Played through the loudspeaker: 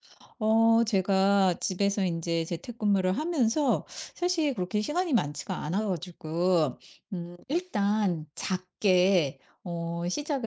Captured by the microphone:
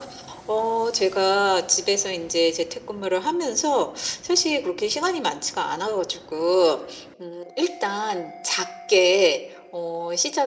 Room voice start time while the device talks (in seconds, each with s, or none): none